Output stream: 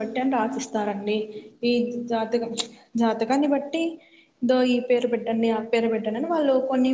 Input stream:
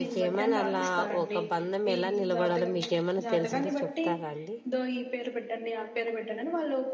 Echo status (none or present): present